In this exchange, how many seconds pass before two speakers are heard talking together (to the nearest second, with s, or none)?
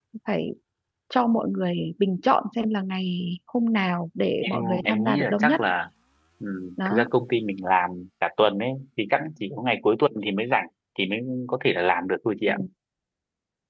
4 s